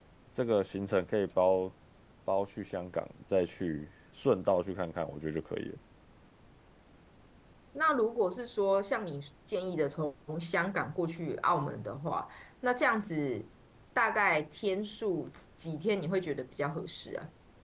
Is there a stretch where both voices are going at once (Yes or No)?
No